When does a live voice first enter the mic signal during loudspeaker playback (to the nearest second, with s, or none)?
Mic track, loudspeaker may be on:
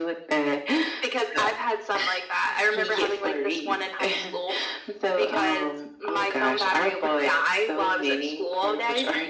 none